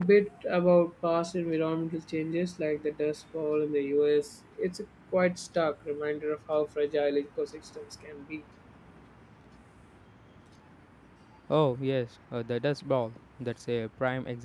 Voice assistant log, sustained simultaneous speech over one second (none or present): none